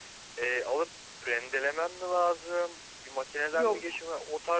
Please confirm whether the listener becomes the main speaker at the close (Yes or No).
No